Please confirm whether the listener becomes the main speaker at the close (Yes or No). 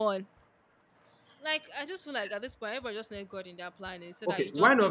Yes